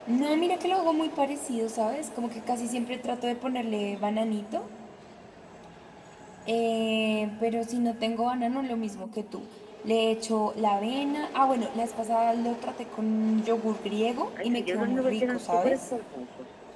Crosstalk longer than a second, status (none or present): present